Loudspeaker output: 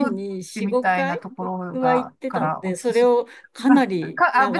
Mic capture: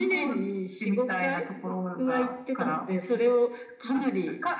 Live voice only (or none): none